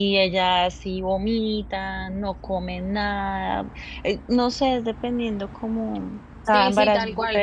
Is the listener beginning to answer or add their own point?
Yes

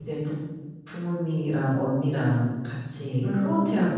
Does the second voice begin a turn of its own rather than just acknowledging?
Yes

